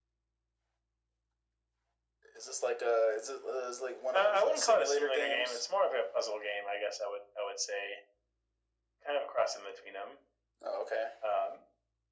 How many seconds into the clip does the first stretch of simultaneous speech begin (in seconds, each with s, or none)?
4.1 s